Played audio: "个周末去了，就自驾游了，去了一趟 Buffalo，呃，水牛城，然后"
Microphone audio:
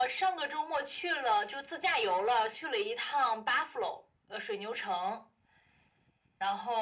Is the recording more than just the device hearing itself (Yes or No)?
No